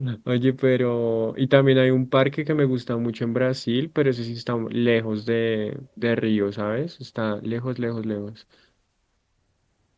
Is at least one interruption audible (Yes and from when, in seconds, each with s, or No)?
No